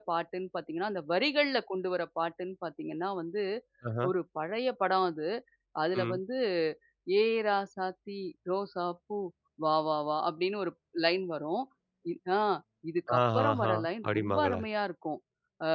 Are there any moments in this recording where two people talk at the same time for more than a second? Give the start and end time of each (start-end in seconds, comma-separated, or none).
13.2-14.6